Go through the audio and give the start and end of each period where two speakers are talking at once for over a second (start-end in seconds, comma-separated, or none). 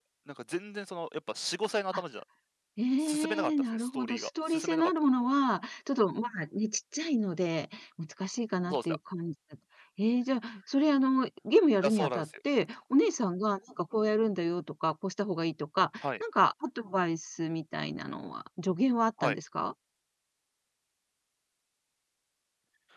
3.0-4.9